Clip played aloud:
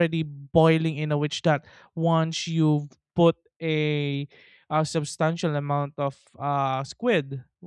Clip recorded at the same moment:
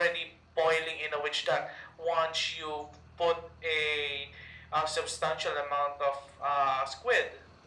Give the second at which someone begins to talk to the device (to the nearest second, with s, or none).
none